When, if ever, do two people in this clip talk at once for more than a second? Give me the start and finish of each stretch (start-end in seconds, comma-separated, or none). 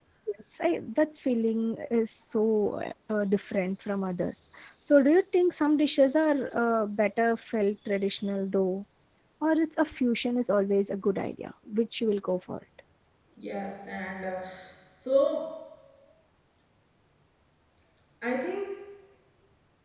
none